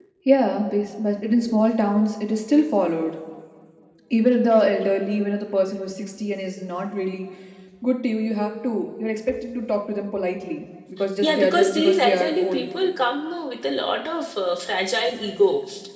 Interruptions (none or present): present